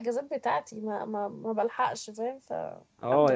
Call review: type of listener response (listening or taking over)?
taking over